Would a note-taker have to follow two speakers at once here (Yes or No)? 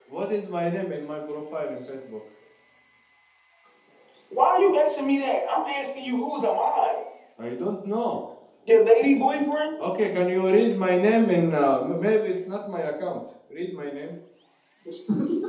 No